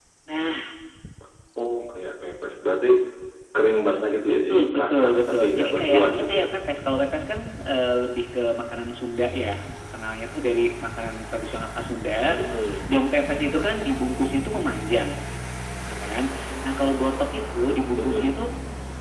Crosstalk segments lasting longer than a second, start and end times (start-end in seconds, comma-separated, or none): 4.3-6.5